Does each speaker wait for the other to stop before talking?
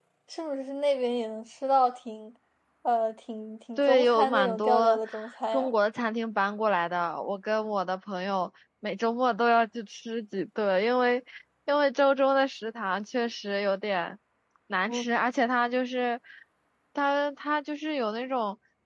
No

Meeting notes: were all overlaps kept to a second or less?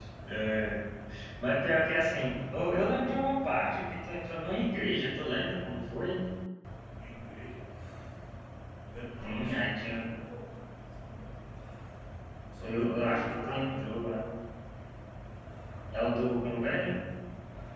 No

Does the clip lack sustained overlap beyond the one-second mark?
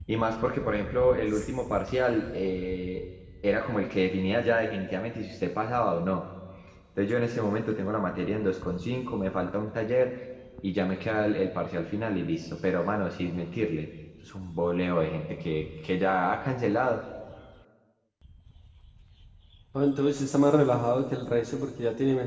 Yes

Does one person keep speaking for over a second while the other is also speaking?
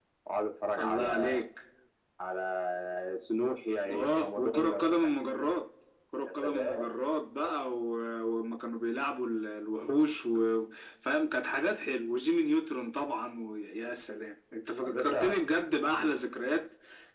Yes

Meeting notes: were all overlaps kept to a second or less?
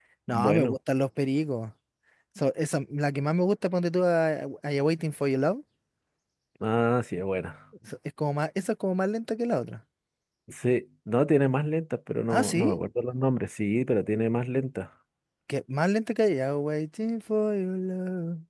Yes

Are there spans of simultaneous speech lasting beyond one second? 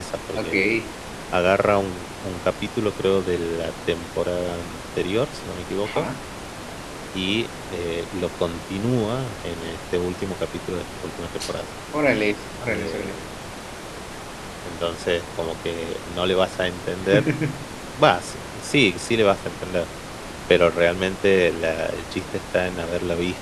No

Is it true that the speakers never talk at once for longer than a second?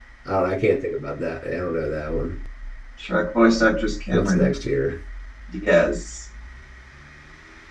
Yes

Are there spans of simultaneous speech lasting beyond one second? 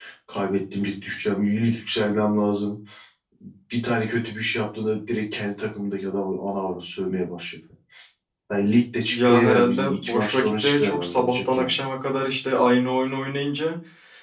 Yes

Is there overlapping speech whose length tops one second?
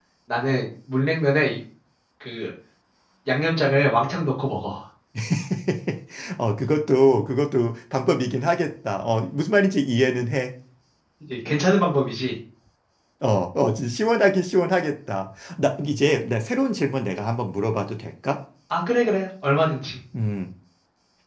No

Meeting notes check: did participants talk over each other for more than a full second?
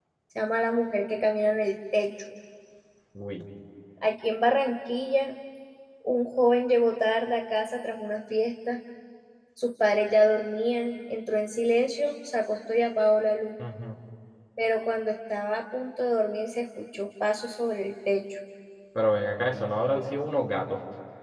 No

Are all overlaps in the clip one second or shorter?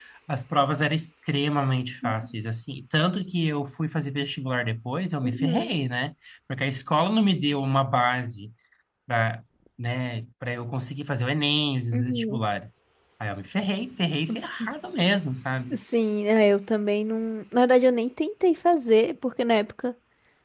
Yes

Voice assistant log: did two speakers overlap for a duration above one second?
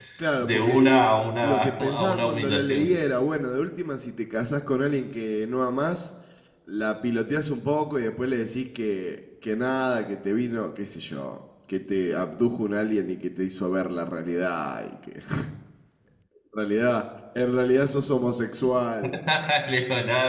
Yes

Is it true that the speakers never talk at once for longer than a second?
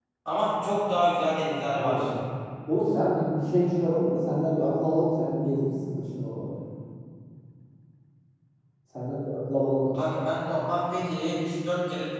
Yes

